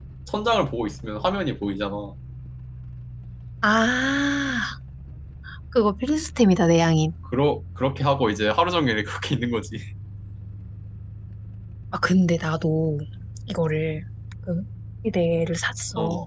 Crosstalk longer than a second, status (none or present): none